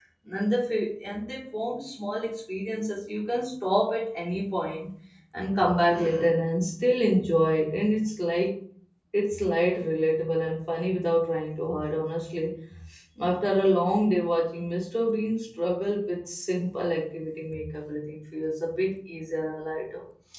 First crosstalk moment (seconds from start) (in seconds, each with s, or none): none